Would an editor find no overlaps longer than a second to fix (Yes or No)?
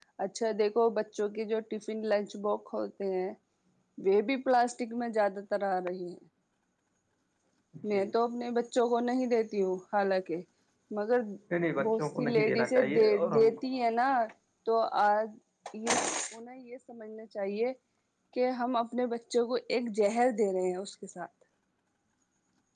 No